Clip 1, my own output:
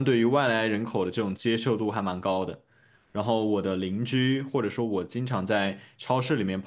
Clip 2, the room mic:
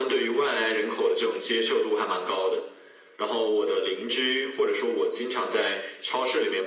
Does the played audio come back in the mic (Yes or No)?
Yes